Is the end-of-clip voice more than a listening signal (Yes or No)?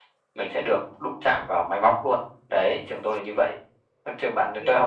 No